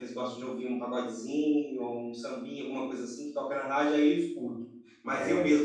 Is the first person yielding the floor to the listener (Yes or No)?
No